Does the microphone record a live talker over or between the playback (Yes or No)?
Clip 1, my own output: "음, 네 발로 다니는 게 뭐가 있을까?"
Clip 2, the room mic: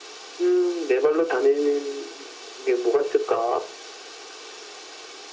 No